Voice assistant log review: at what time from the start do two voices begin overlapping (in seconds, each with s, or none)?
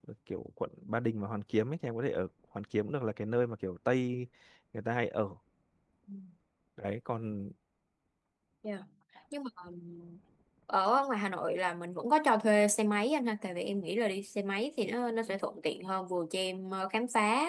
none